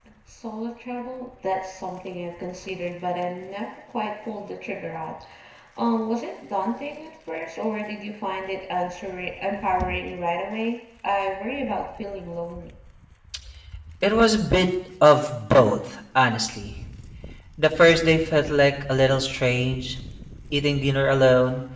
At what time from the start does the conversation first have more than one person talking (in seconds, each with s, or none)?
none